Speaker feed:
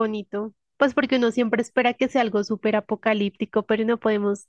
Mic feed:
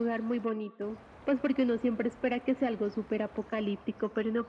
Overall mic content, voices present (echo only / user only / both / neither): echo only